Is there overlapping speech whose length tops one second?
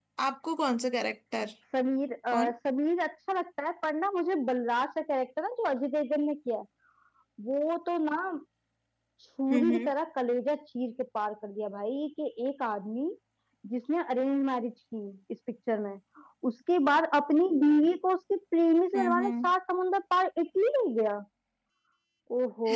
No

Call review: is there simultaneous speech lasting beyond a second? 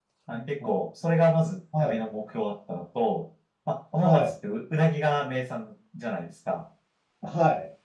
No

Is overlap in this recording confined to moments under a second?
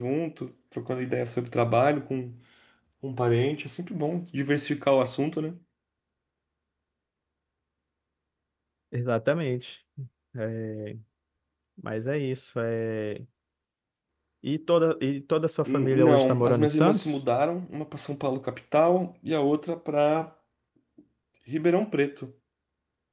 No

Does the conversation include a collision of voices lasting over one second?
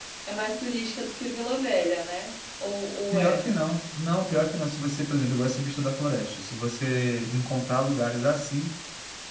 No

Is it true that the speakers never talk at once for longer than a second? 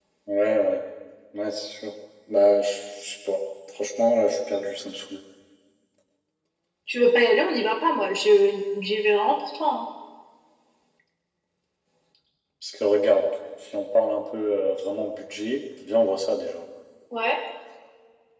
Yes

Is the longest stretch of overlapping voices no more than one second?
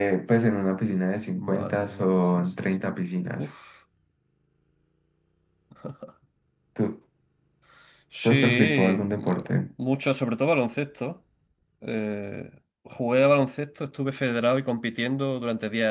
No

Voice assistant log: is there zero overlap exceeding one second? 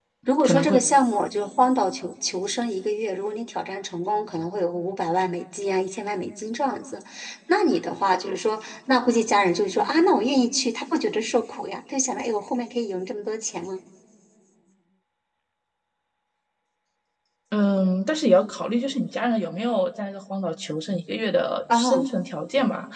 Yes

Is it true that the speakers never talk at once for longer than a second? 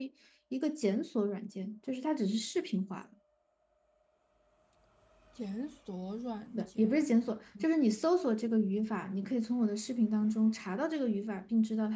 Yes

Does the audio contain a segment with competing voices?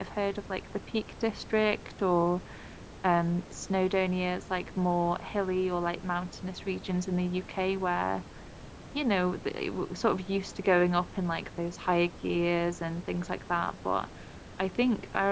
No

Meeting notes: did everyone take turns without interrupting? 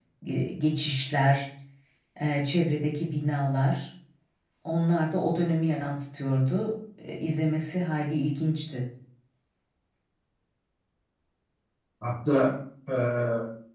Yes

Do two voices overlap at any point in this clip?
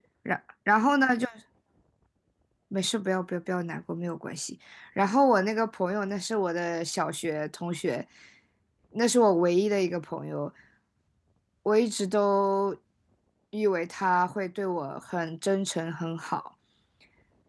No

